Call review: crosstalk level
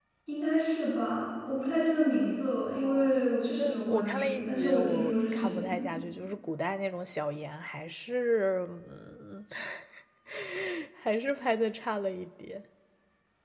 present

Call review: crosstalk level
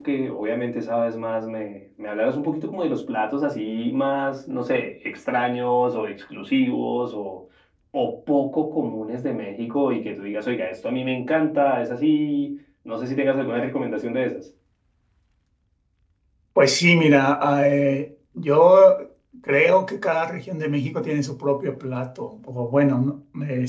none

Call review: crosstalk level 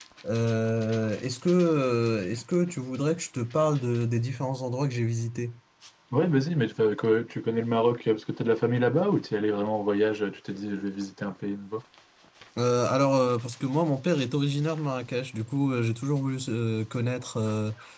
none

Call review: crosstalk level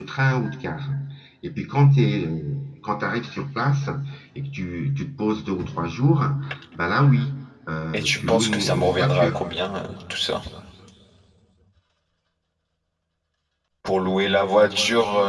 present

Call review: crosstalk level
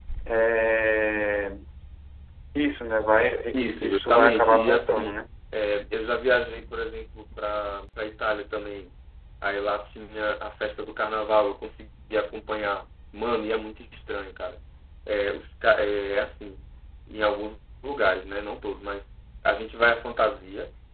present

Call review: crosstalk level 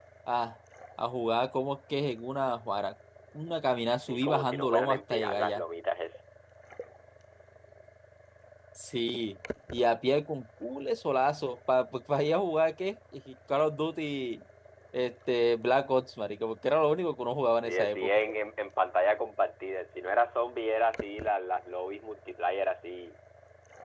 present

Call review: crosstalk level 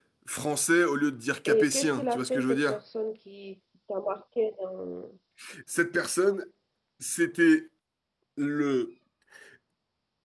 present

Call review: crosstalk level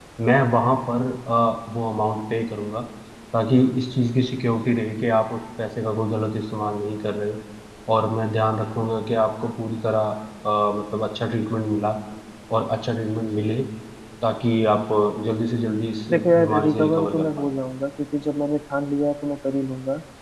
present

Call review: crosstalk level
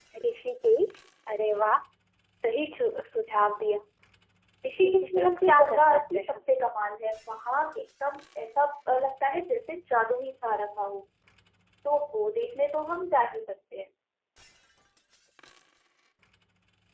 present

